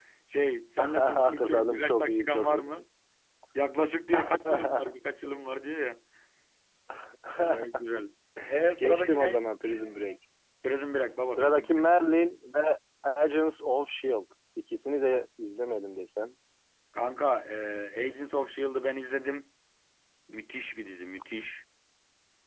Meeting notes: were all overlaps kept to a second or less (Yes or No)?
No